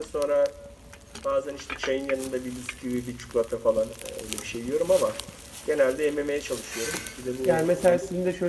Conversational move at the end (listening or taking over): taking over